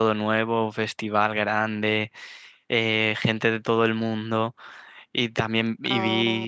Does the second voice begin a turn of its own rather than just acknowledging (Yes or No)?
No